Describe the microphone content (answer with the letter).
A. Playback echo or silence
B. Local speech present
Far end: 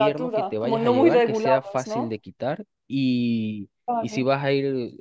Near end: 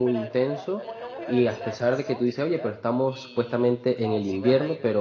B